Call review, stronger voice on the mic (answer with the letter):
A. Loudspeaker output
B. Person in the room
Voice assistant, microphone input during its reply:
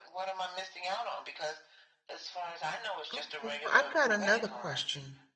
B